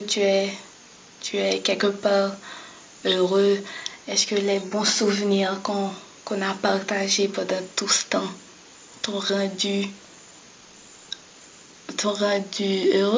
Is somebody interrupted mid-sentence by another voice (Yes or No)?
No